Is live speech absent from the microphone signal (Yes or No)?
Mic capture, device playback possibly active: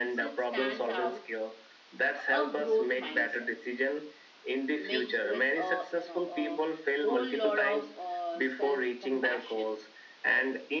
No